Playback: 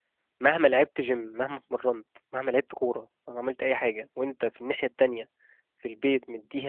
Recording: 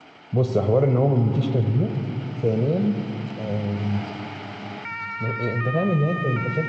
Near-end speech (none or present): present